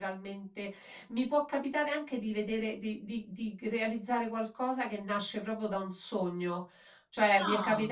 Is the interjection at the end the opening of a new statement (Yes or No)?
No